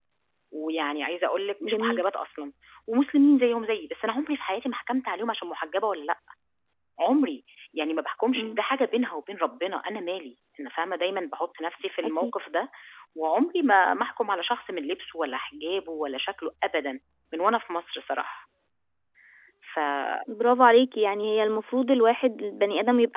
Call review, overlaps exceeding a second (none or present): none